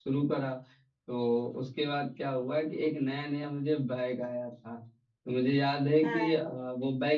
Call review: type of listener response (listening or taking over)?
listening